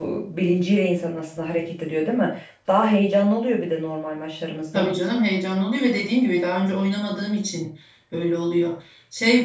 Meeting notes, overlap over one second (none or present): none